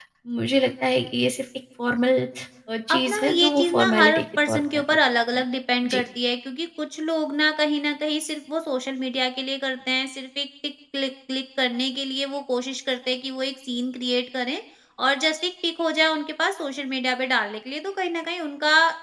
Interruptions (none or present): present